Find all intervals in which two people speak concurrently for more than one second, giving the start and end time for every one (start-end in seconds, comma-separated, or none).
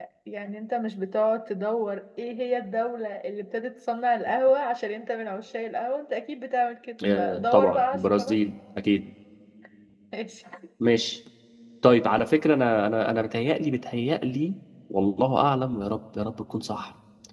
7.2-8.4